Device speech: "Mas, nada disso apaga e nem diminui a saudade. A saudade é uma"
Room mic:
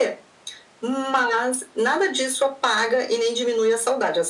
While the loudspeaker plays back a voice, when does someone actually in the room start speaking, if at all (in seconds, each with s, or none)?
none